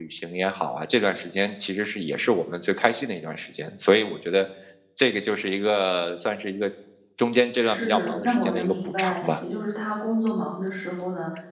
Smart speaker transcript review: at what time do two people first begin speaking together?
7.6 s

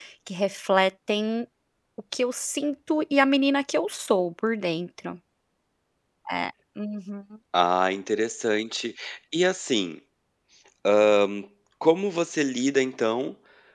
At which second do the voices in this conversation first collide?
none

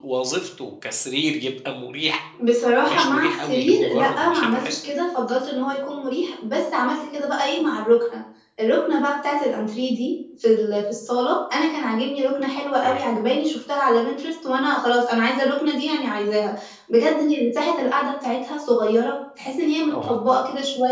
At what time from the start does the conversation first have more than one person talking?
2.9 s

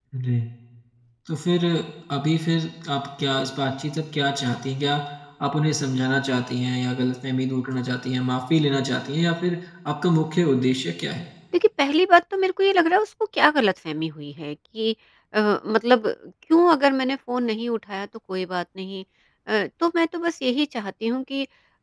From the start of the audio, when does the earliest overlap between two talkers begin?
none

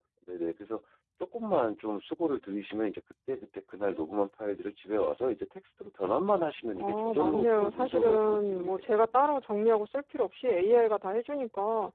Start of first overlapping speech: 6.8 s

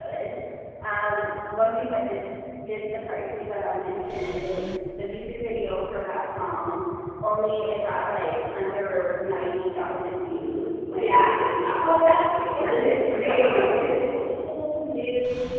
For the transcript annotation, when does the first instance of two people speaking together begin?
10.9 s

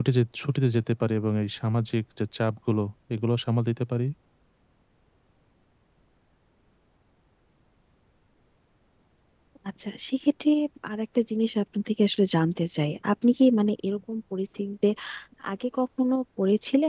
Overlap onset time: none

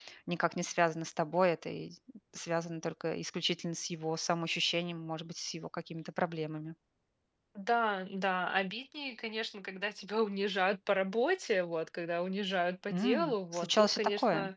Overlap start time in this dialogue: 12.9 s

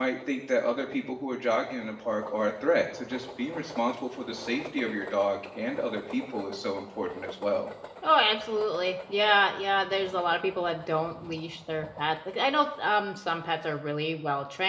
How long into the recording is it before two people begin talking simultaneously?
none

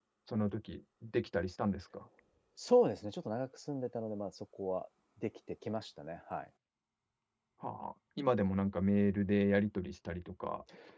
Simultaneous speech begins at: none

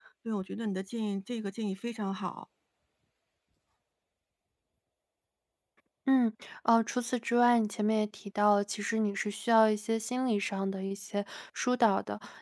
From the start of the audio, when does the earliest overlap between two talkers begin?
none

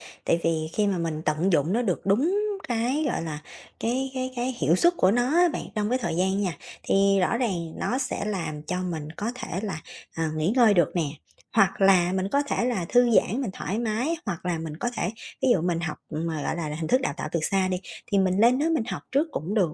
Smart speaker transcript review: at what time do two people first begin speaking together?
none

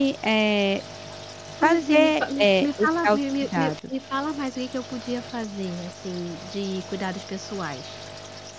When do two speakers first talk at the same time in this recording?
1.6 s

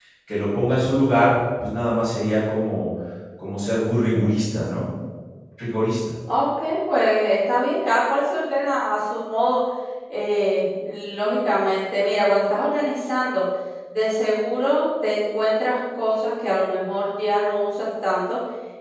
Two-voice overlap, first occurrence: none

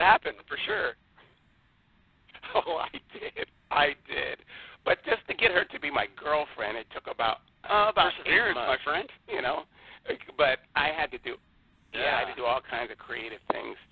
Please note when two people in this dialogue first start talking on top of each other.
7.7 s

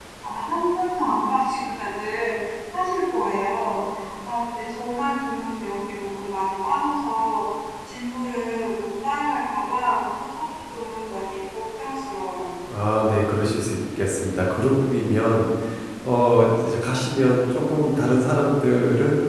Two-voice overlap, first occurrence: none

